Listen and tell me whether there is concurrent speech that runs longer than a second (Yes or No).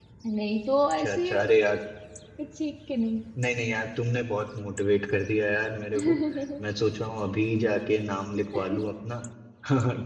No